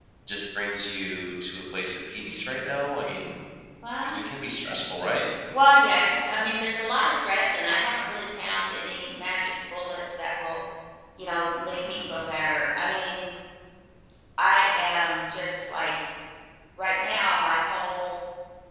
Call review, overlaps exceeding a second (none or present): none